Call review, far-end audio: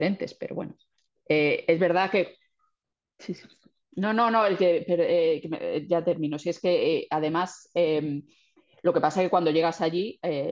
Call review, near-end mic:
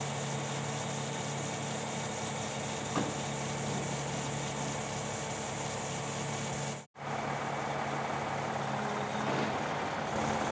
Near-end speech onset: none

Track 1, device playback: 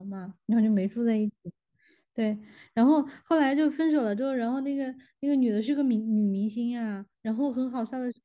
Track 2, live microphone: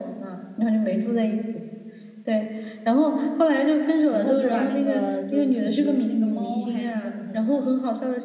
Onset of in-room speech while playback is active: 4.1 s

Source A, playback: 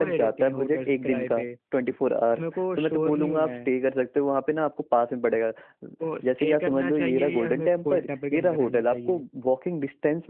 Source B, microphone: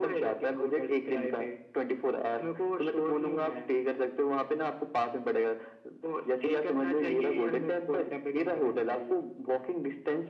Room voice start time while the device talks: none

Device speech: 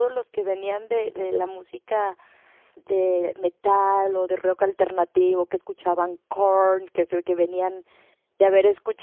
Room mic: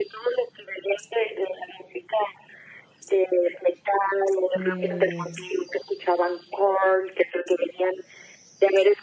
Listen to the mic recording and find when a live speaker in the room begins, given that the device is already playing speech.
4.5 s

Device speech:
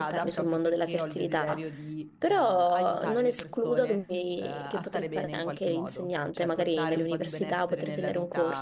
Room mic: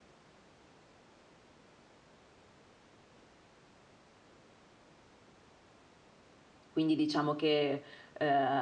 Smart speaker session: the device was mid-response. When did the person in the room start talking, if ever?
6.7 s

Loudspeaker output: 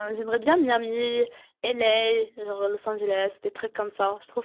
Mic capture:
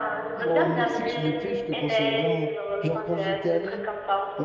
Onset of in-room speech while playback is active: 0.4 s

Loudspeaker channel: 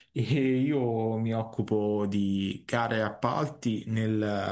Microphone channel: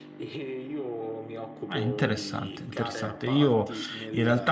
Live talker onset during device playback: 1.7 s

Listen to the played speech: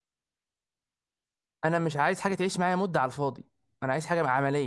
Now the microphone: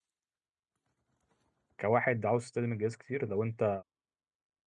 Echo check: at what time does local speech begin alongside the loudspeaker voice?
1.8 s

